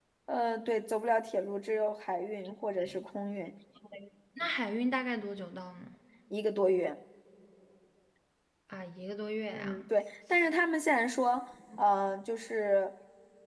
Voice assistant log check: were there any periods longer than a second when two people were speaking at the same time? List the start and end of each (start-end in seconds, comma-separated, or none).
none